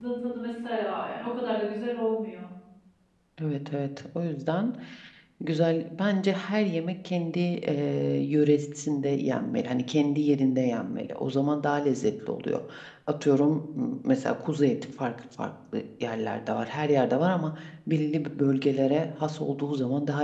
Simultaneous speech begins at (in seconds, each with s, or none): none